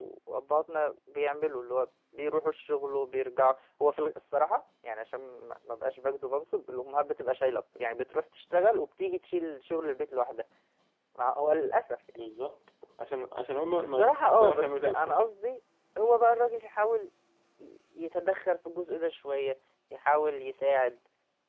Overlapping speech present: Yes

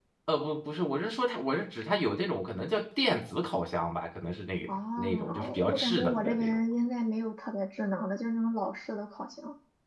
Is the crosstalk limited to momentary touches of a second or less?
No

